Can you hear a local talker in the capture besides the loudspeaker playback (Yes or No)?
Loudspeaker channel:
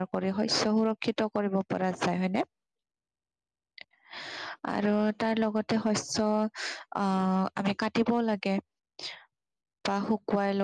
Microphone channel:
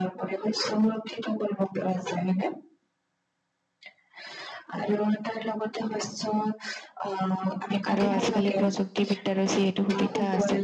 Yes